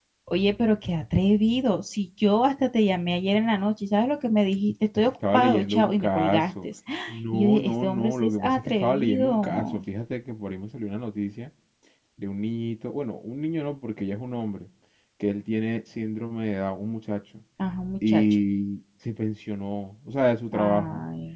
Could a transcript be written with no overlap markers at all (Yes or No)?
No